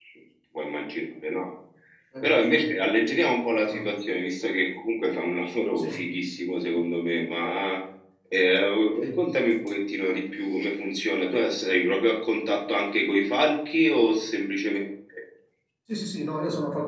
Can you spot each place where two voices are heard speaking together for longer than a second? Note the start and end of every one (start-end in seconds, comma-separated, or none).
none